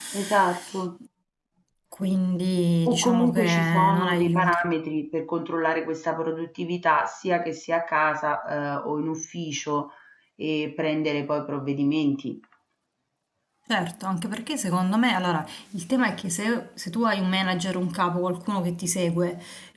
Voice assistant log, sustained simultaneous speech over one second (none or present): present